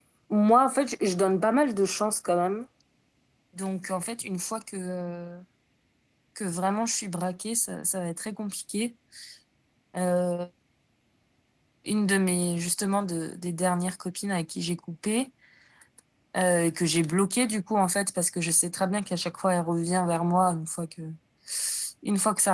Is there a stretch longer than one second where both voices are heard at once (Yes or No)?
No